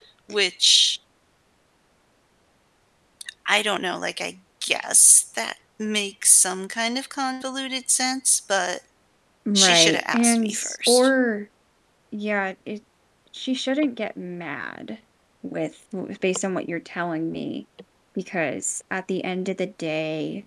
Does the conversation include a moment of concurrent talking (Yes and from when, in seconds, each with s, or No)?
Yes, from 9.6 s